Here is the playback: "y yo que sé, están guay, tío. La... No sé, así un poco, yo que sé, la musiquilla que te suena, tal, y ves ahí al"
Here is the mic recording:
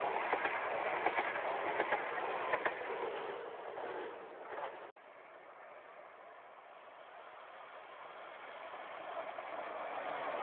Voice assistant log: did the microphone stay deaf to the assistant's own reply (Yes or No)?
Yes